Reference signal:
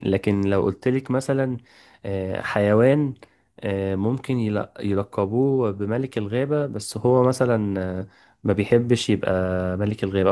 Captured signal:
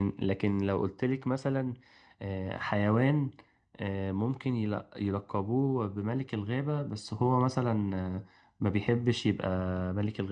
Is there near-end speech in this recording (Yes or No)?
No